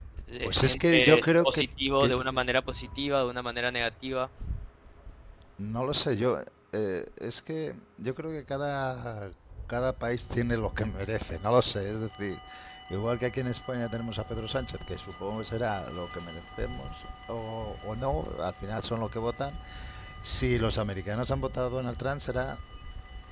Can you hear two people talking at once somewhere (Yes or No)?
Yes